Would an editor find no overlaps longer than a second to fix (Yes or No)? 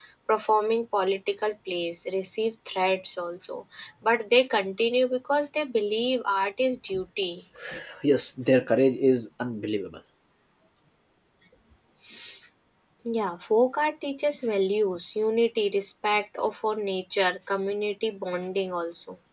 Yes